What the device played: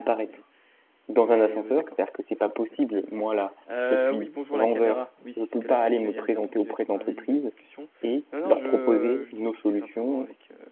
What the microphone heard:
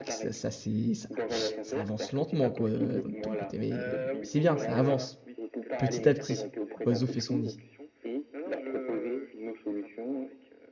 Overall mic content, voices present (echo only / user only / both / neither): both